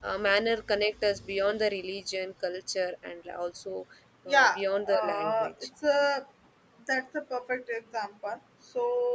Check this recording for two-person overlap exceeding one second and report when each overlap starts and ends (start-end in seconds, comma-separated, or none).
4.3-5.5